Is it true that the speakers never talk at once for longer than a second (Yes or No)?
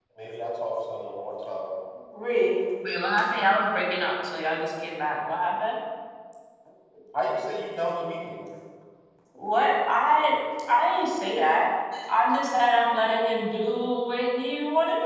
Yes